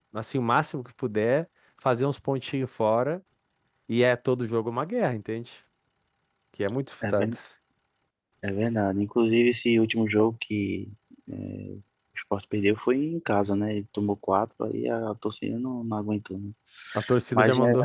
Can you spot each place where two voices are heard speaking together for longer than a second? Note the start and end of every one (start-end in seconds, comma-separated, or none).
none